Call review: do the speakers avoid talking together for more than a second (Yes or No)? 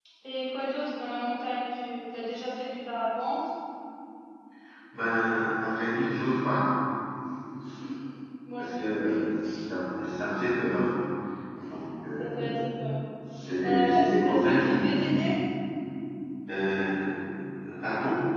No